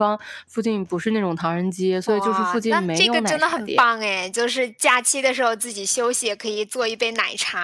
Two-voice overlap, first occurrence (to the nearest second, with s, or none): 2 s